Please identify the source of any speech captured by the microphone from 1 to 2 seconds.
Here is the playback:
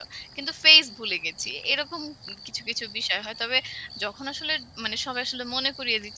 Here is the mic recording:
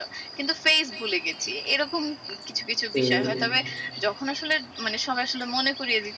echo only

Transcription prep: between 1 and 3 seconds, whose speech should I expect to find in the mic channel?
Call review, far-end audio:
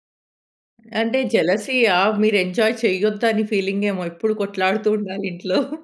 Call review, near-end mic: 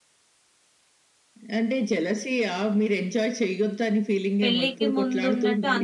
echo only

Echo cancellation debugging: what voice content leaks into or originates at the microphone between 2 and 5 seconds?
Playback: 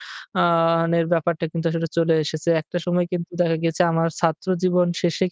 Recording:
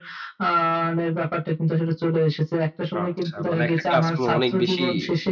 both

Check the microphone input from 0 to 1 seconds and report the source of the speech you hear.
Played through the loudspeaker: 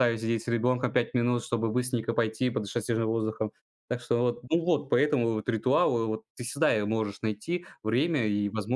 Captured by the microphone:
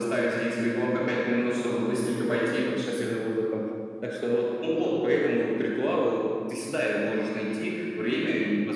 echo only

